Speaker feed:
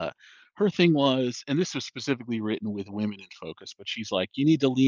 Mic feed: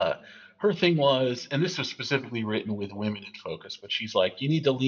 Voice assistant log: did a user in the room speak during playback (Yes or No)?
No